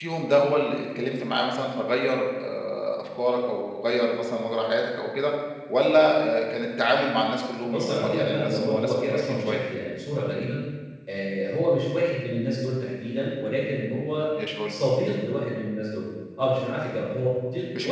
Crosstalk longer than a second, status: present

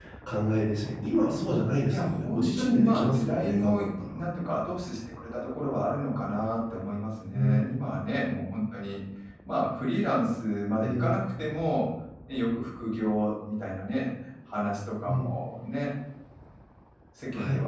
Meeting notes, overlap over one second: present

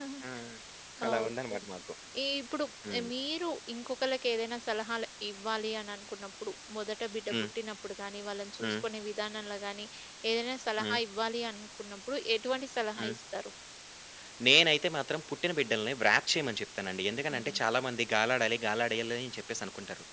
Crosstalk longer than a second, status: none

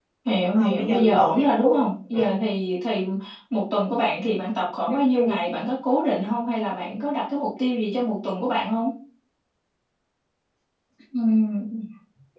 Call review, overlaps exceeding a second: present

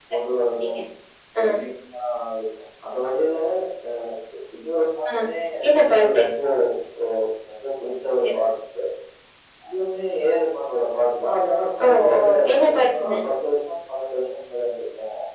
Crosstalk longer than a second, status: present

